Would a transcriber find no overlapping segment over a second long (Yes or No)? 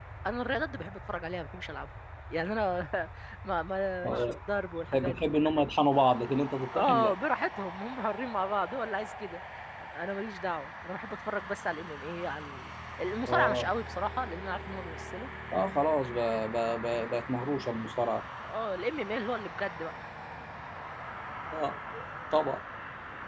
Yes